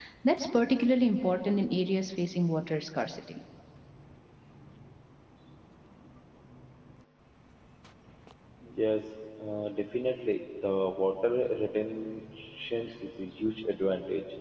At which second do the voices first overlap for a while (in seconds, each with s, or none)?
none